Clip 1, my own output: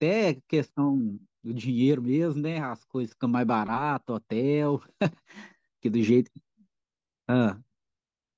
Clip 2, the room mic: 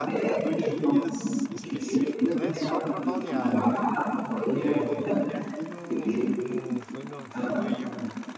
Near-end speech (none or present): present